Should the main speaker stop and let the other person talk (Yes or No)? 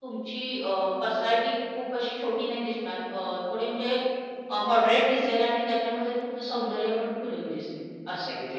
Yes